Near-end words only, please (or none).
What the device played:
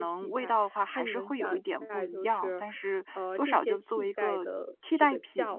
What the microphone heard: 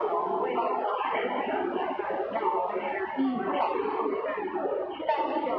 嗯，